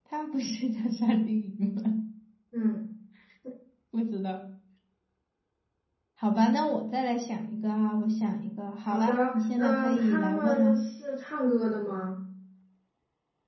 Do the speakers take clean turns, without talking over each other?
No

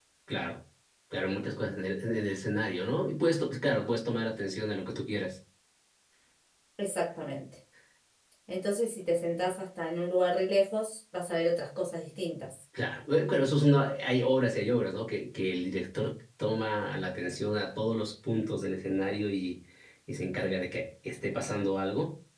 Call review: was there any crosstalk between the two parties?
No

